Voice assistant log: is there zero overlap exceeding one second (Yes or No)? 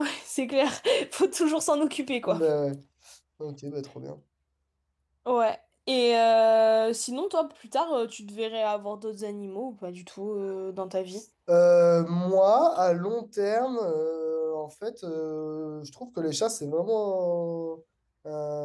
Yes